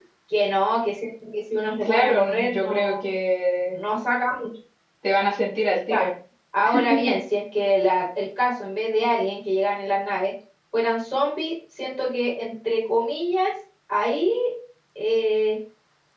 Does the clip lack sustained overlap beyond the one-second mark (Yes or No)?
No